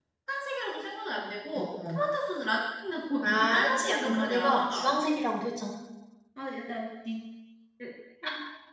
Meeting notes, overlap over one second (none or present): present